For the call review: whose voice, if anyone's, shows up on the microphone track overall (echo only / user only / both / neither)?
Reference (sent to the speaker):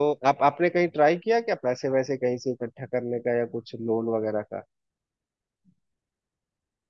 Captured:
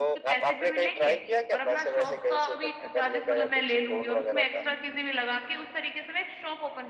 both